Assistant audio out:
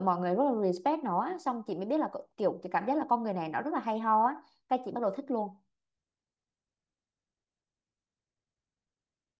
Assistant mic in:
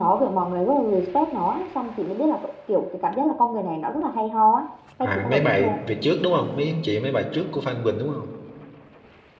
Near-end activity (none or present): present